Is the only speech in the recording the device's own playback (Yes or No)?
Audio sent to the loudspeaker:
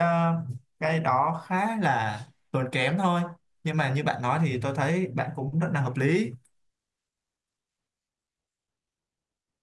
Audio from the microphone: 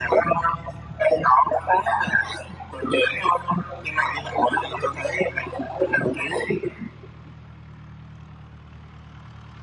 Yes